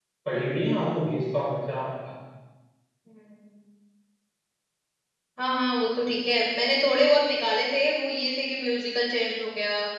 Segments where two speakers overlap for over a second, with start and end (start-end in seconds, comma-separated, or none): none